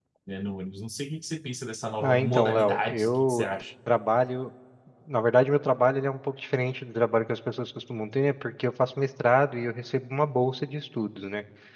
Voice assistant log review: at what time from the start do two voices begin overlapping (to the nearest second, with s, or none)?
2 s